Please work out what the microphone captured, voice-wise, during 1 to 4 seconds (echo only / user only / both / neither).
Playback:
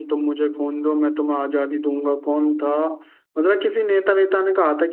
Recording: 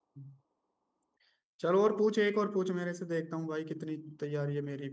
user only